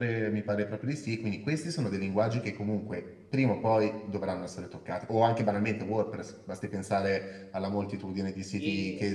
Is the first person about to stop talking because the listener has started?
No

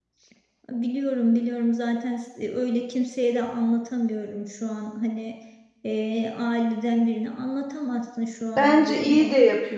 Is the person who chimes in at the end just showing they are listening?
No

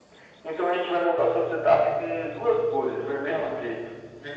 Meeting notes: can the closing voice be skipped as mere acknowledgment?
No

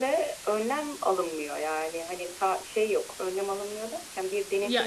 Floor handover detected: No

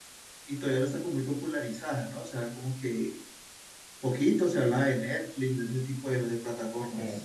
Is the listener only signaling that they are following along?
No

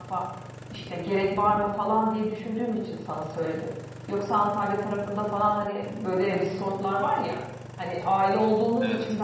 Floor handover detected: No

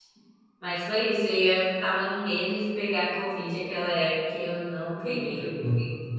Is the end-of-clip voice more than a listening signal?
No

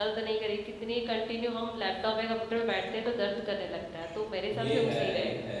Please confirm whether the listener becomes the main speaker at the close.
Yes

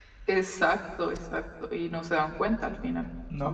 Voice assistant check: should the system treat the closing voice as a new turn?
Yes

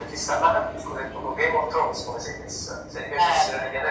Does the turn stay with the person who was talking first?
No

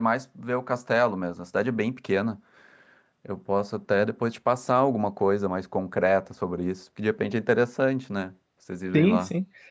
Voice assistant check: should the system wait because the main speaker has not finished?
No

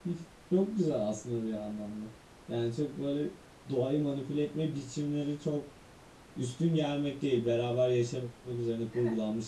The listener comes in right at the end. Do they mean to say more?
Yes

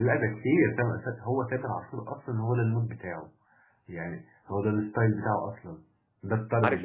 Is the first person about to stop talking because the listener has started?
Yes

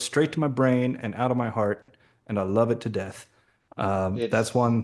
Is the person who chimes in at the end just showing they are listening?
Yes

